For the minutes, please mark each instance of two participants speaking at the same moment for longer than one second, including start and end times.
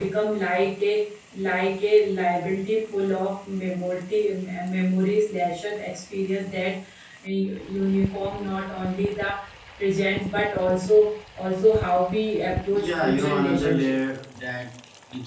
12.7-13.9

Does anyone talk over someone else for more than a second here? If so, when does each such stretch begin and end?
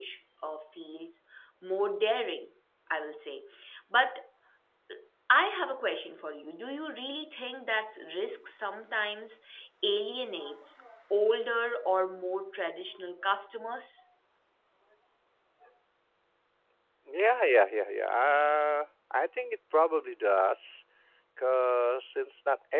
none

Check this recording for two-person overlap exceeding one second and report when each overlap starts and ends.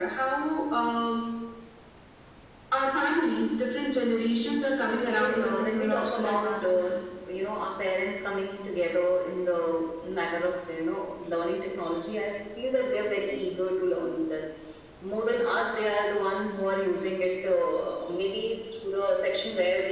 4.9-6.9

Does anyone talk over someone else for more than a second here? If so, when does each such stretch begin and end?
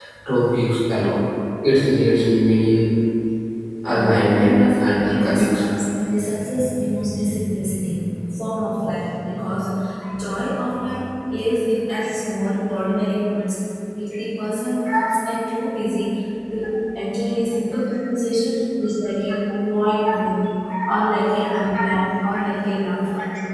3.9-5.8

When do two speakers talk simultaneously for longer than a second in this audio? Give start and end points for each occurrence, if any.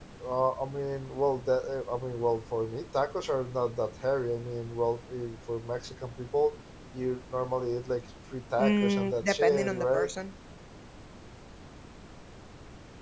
8.6-10.1

